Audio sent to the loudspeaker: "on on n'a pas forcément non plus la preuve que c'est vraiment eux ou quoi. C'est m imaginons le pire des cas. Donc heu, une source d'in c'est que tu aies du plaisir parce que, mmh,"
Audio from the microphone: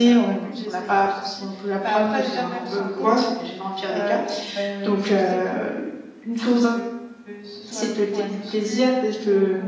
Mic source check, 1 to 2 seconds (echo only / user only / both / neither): both